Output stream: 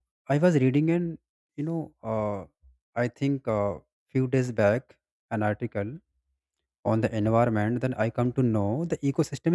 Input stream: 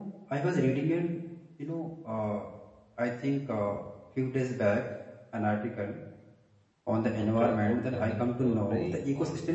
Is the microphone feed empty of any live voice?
No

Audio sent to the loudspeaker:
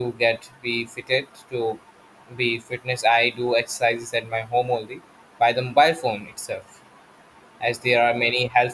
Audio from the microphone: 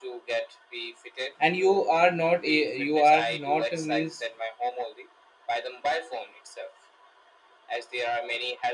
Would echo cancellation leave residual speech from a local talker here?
Yes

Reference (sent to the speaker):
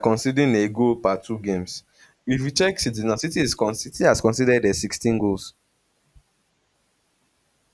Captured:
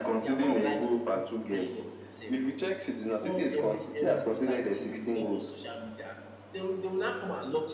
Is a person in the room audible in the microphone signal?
Yes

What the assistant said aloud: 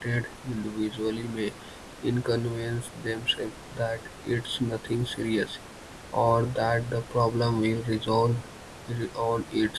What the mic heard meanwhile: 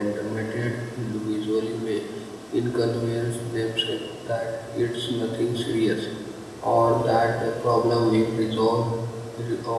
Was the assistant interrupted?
No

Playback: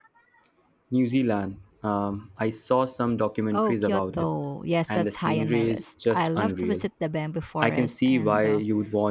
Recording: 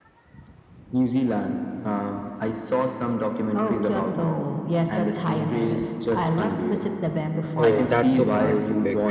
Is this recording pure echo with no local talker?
No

